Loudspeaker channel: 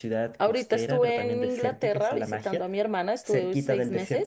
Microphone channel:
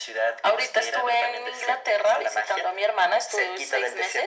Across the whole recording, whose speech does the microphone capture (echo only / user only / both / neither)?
echo only